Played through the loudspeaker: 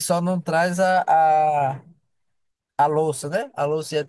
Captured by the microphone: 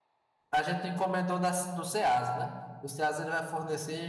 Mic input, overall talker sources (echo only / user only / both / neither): user only